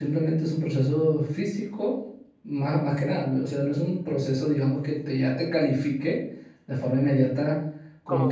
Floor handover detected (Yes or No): No